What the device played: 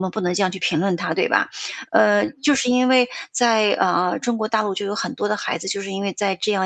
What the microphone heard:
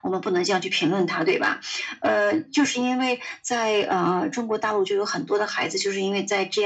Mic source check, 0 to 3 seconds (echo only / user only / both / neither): echo only